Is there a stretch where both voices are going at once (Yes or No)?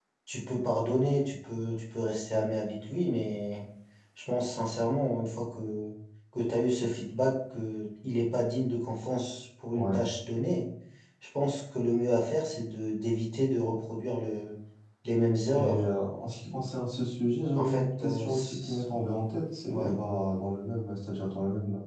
Yes